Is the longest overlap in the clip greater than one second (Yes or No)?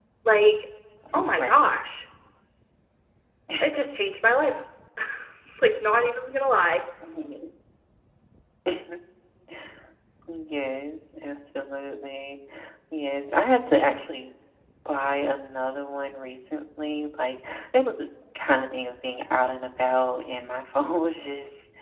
No